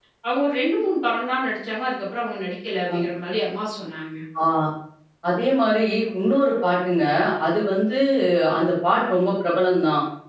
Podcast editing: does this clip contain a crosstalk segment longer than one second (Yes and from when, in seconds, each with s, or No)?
No